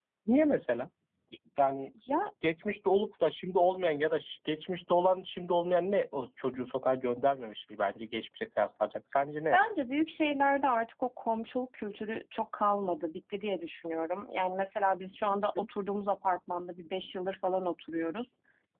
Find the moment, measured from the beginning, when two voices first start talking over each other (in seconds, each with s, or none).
none